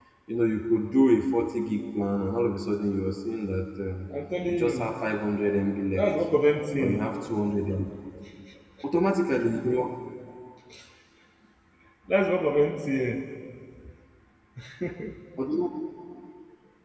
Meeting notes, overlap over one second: none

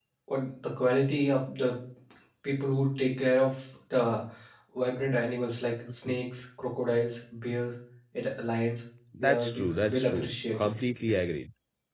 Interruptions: present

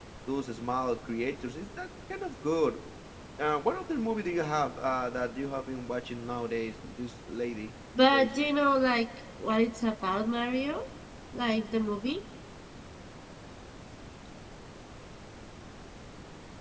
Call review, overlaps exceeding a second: none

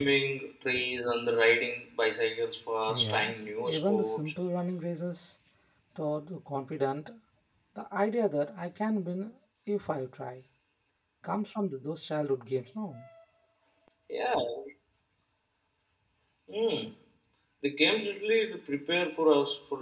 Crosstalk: present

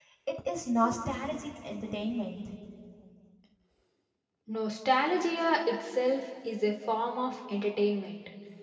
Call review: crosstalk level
none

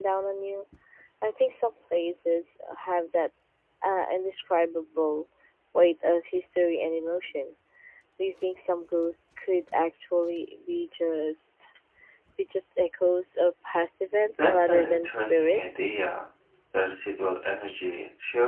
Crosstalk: present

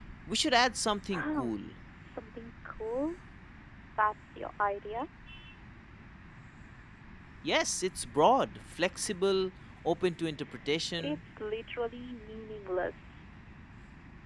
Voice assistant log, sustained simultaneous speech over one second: none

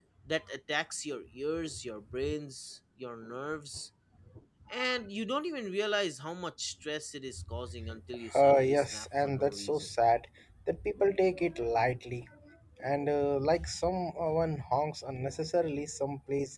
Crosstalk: present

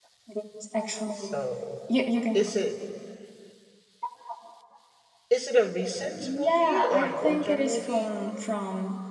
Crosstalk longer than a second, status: present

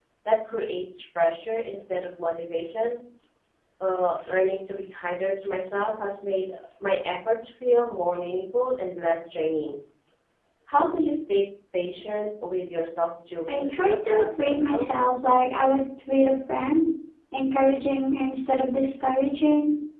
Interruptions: present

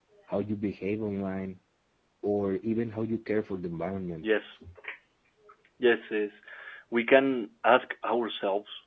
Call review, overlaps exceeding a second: none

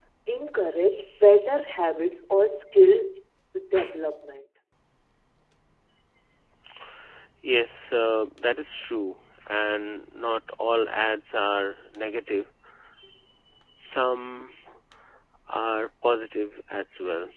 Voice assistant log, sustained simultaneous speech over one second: none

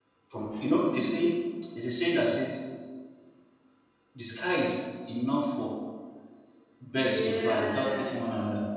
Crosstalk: present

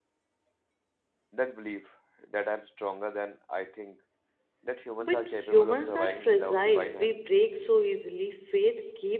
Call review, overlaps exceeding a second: present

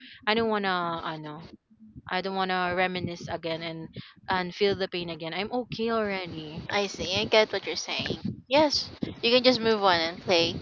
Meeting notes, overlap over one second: none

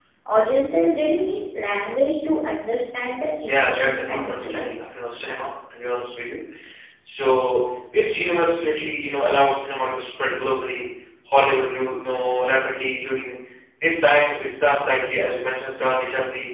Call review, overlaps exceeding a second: present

